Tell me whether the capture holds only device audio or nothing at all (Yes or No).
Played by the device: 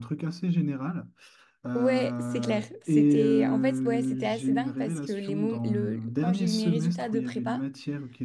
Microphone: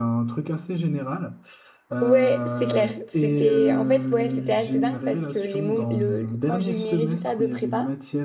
Yes